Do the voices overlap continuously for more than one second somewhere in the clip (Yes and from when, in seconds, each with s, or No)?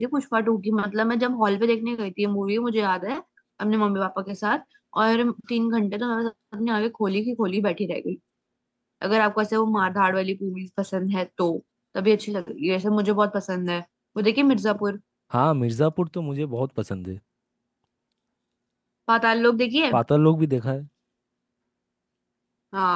No